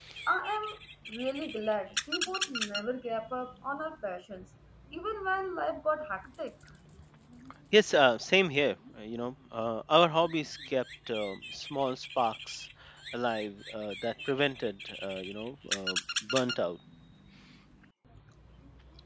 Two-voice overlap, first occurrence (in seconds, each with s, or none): none